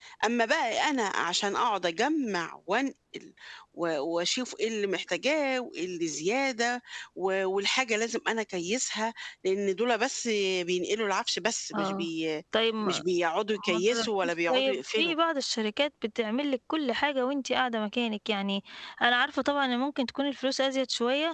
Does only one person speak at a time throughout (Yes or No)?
No